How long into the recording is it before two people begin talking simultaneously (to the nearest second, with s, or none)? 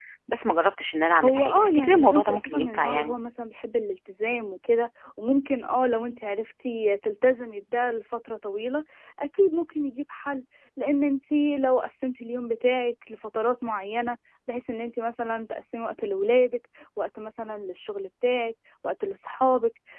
1 s